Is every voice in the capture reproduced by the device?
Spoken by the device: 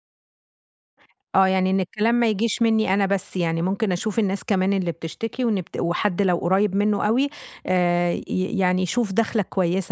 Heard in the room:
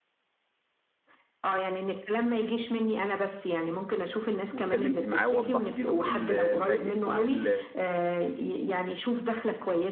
No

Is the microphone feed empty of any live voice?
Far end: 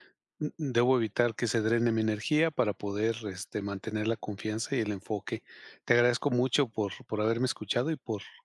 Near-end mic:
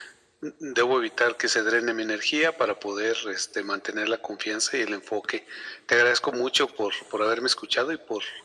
Yes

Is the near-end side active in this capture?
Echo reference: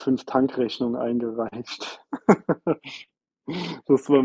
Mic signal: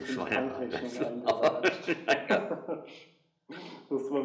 Yes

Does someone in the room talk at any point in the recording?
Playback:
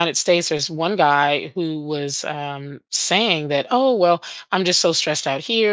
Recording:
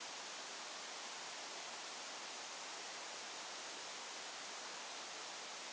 No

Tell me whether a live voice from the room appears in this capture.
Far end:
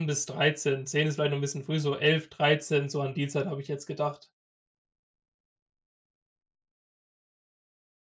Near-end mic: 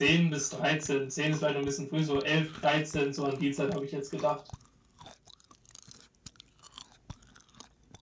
No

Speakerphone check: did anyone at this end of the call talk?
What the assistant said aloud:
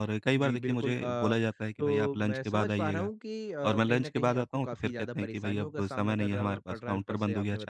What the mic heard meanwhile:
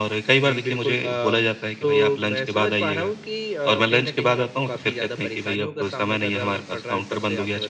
No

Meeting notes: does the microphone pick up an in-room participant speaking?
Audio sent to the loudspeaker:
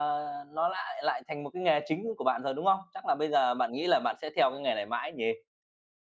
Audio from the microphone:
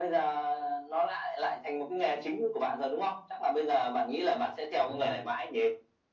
Yes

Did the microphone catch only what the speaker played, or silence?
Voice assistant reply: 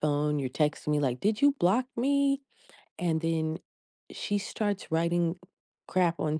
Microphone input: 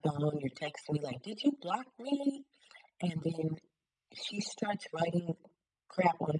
Yes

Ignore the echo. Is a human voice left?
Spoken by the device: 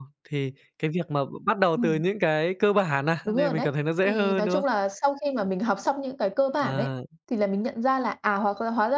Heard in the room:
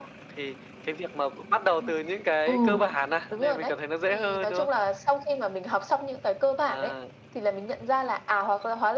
Yes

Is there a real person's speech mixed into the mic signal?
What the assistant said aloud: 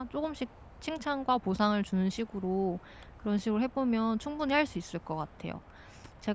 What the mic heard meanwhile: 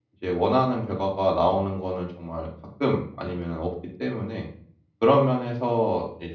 Yes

